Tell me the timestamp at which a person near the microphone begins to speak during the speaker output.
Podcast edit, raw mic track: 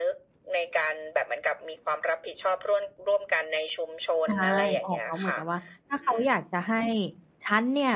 4.2 s

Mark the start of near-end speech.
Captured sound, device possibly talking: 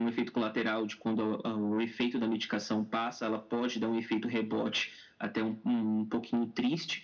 none

